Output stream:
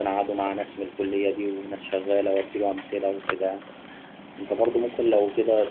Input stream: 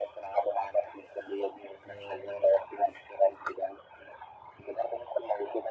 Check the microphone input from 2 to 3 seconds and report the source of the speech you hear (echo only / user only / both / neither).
both